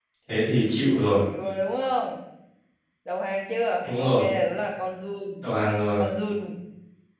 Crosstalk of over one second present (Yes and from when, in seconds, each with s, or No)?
No